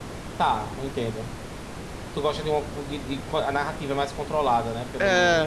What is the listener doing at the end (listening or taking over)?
taking over